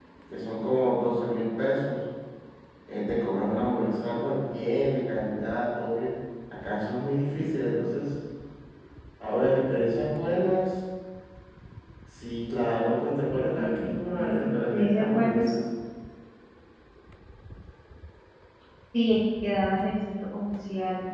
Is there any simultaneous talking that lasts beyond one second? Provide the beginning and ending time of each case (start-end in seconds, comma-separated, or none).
13.8-15.4